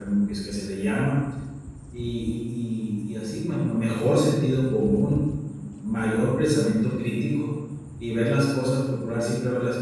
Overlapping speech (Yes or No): No